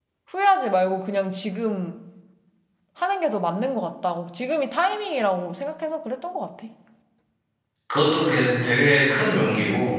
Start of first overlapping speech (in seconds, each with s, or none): none